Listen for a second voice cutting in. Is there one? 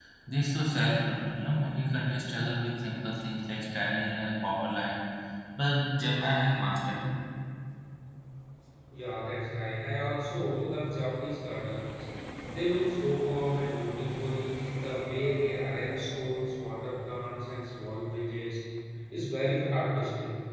No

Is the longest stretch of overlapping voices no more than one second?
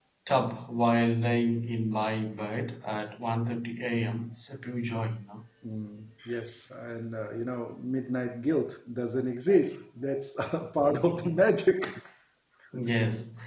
Yes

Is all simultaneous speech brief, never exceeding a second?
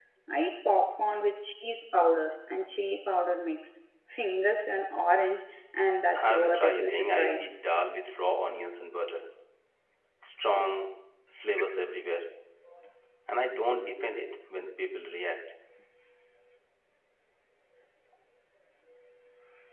No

